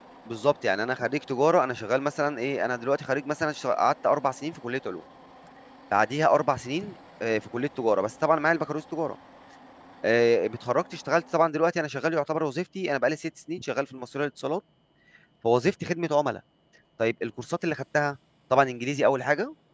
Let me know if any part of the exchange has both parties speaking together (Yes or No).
No